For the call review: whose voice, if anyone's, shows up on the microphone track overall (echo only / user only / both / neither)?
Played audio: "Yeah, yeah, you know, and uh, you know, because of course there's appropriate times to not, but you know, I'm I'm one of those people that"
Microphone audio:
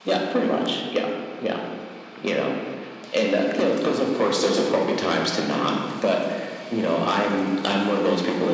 echo only